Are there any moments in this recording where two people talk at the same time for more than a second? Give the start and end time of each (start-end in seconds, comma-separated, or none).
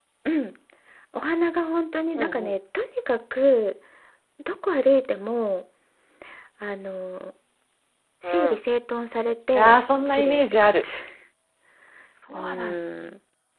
9.6-10.8